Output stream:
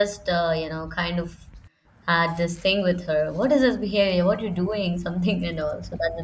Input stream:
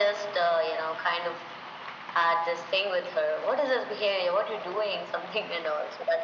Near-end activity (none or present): none